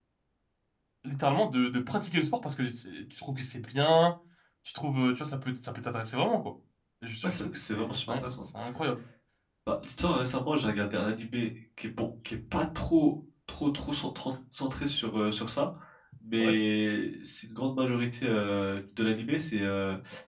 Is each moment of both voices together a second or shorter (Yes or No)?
No